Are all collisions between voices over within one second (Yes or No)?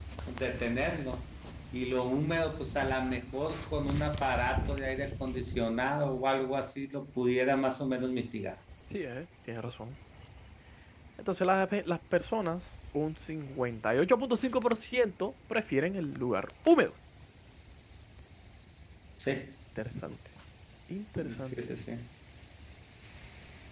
Yes